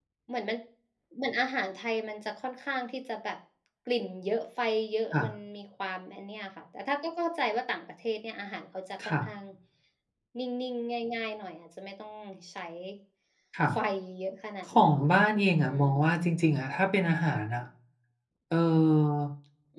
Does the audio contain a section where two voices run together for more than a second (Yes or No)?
No